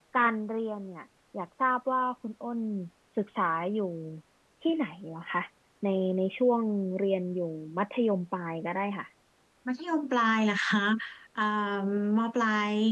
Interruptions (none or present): none